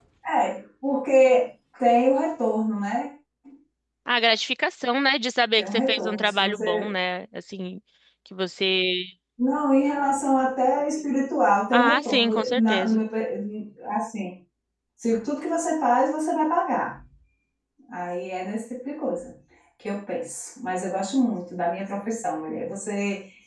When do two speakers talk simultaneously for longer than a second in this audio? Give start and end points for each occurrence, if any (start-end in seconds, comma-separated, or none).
5.6-6.8, 11.7-13.0